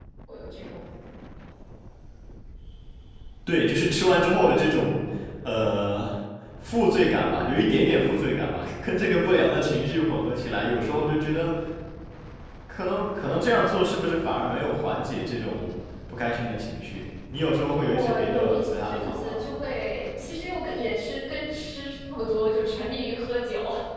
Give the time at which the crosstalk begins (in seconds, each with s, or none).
17.9 s